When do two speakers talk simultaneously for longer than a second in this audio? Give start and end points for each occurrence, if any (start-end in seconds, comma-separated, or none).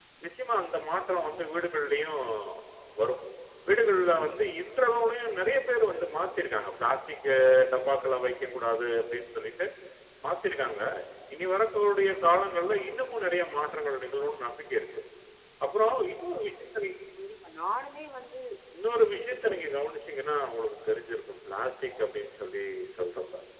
none